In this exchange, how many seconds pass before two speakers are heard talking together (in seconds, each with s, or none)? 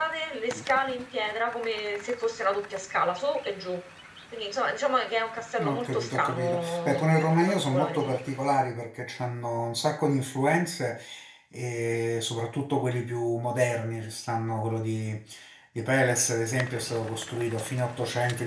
5.6 s